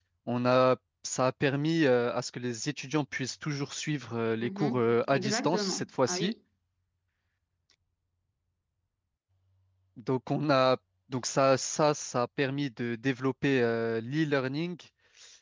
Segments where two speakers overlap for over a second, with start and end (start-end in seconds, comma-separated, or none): 4.4-6.3